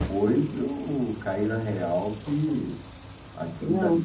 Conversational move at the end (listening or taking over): listening